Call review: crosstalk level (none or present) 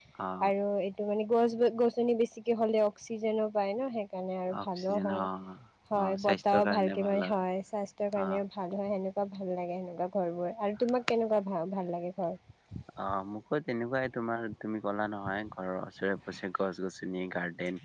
present